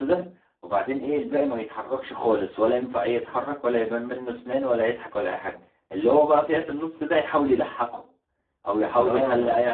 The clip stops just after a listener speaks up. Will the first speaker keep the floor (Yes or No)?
Yes